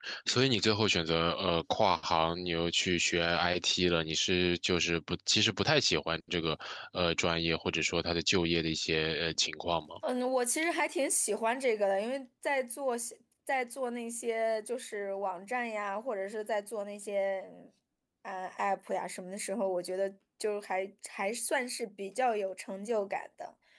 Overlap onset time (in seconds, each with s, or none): none